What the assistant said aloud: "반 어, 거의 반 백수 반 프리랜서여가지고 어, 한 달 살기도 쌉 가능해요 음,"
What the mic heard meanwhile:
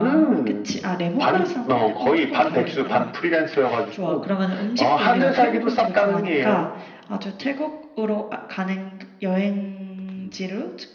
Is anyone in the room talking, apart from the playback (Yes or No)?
Yes